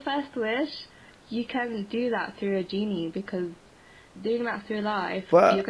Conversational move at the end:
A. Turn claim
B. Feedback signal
A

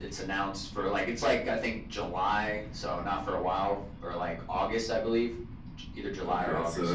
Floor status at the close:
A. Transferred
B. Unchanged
A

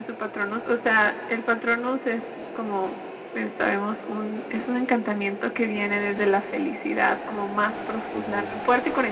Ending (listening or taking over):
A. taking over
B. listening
B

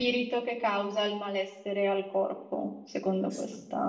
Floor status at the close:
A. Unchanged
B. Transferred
B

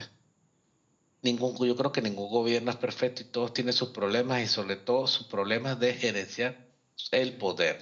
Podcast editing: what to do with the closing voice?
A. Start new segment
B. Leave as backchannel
B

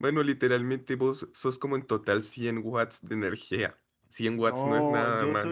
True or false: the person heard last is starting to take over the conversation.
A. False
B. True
B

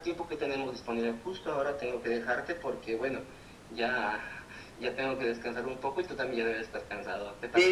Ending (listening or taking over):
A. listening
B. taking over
B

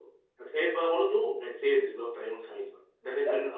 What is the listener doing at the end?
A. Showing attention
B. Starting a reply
B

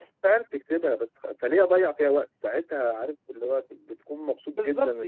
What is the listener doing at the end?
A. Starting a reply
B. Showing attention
A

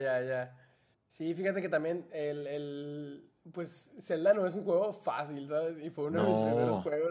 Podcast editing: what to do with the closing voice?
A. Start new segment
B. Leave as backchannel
B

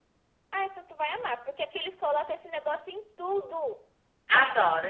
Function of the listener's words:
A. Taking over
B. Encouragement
A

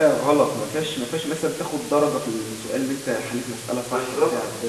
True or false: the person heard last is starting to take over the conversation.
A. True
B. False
A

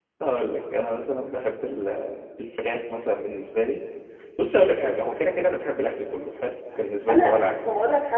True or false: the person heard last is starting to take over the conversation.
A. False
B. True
B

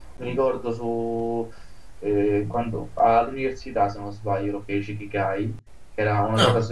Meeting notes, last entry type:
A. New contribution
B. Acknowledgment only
B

